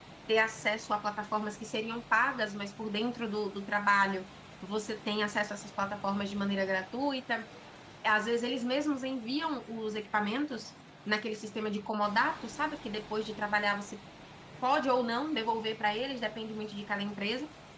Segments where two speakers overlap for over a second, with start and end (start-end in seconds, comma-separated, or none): none